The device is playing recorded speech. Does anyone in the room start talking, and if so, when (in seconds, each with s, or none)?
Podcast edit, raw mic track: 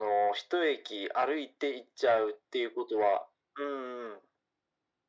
none